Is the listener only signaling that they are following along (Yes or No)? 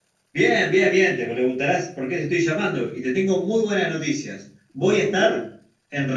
Yes